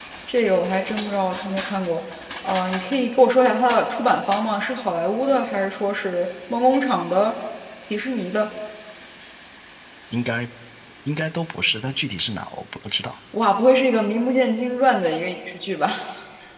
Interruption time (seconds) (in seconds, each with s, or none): none